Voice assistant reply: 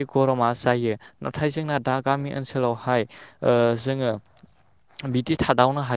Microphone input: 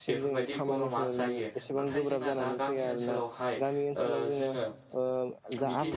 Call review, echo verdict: present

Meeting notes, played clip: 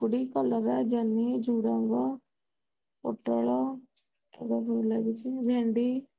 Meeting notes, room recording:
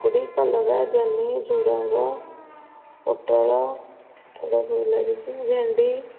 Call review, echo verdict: present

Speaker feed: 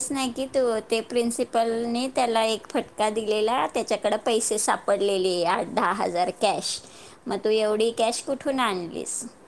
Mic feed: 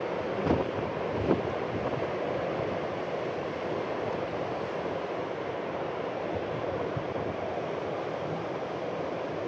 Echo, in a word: none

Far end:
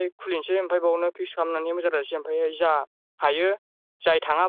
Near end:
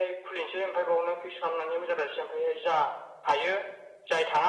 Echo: present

